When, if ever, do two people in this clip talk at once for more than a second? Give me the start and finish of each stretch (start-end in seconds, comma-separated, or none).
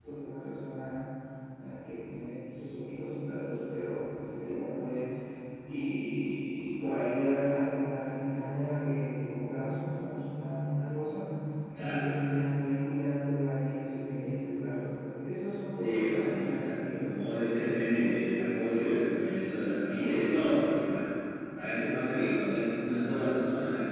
15.7-17.3